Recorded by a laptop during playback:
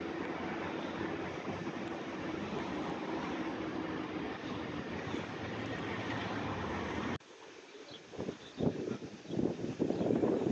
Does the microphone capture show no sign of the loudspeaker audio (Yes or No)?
Yes